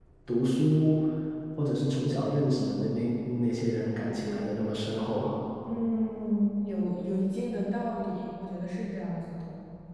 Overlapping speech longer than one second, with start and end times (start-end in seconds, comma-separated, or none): none